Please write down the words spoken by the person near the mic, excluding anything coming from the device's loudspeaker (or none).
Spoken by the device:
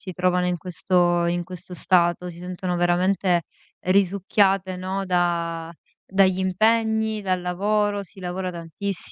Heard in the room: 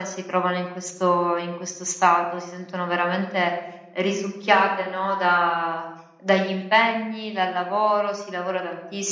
none